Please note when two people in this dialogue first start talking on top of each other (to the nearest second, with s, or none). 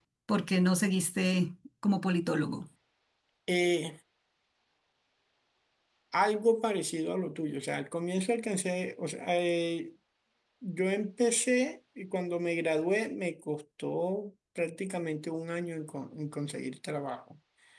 none